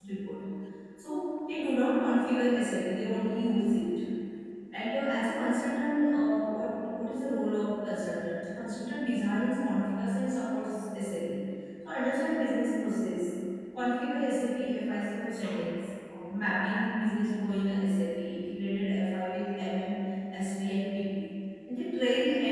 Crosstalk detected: No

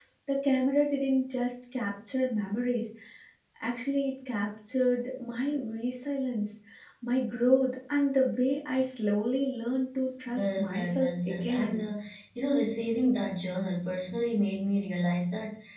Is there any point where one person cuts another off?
Yes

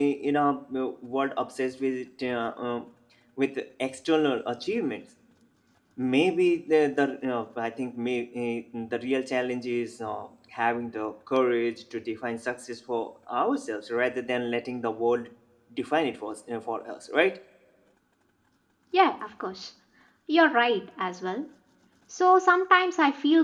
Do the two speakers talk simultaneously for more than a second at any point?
No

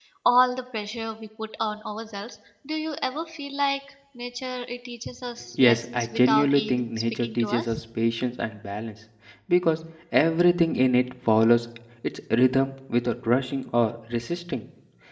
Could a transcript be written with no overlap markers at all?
No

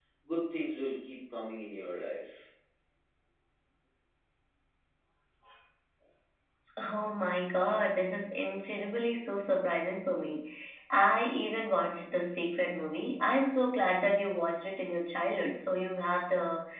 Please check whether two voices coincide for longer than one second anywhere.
No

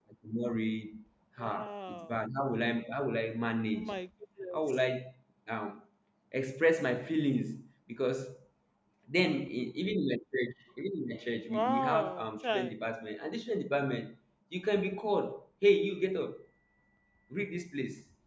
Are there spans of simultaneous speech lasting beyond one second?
Yes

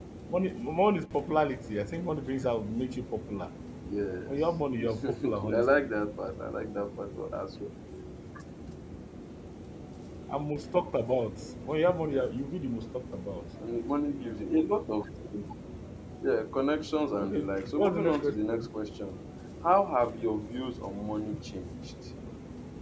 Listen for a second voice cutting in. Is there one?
Yes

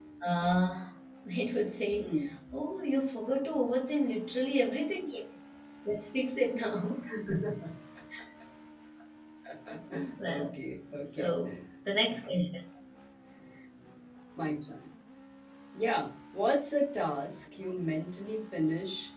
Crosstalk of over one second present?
No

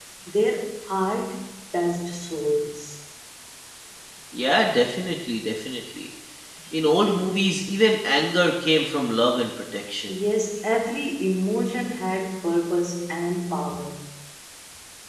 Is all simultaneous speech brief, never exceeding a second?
Yes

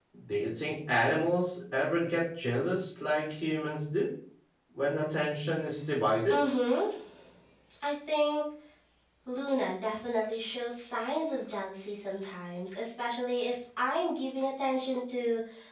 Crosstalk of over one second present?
No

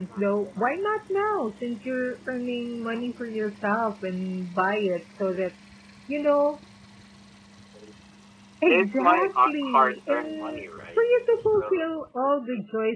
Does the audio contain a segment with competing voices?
Yes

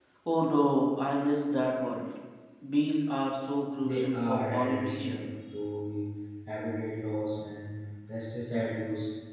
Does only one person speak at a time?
No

